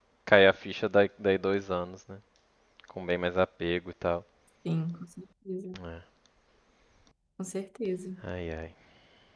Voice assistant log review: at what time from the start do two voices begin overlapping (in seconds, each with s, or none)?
none